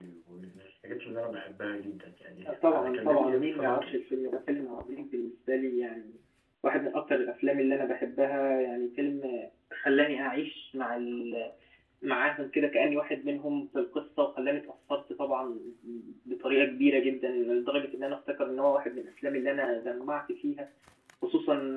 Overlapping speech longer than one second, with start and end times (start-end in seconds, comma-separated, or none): 2.7-3.9